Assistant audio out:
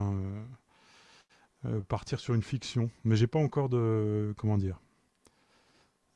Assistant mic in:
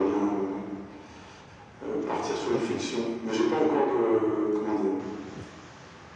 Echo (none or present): present